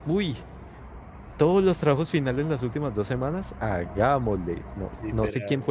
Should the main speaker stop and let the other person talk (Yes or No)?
No